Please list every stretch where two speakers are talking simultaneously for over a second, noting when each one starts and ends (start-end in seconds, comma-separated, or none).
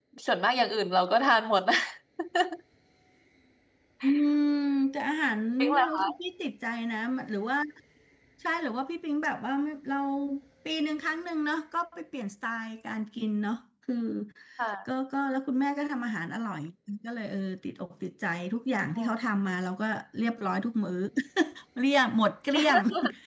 none